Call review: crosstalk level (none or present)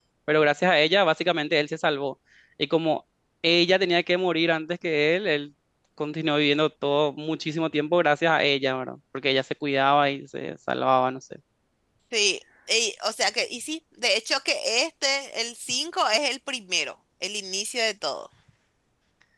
none